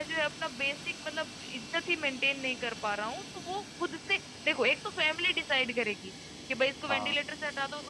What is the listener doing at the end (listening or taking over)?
listening